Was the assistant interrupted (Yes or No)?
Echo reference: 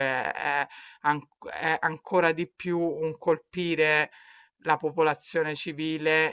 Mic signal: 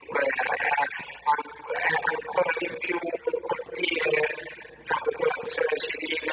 No